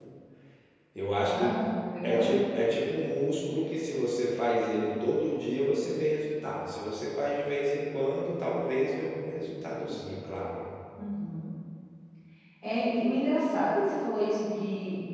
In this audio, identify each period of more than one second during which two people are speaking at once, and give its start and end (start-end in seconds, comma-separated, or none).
none